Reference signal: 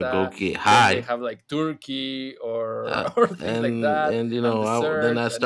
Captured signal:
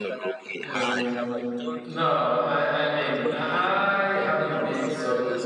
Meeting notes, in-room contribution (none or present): present